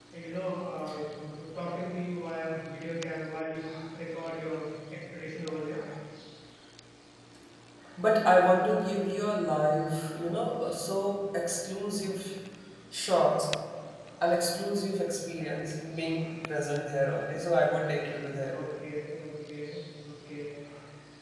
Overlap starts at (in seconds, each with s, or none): none